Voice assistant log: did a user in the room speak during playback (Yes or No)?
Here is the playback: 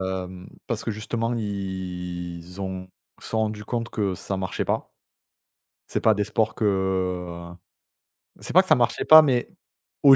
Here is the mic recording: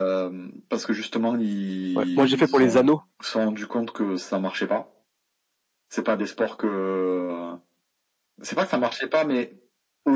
Yes